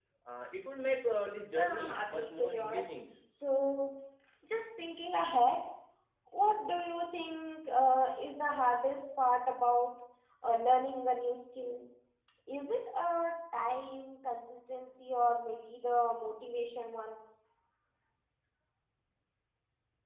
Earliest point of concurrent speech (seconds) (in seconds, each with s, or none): 1.5 s